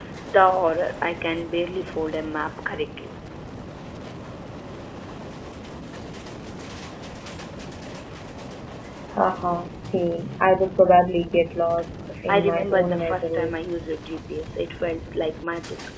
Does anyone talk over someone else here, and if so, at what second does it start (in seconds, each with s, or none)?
12.3 s